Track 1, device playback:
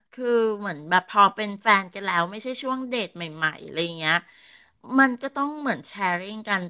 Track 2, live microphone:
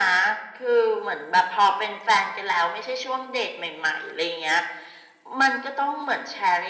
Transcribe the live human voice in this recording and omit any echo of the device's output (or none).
none